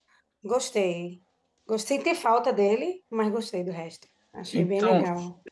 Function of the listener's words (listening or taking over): taking over